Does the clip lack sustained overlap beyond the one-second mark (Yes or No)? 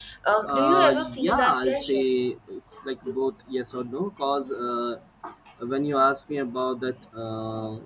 No